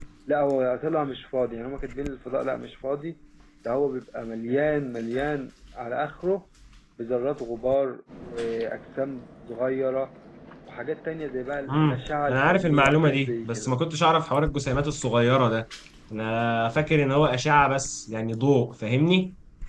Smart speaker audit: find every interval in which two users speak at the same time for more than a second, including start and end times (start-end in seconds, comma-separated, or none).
11.7-13.7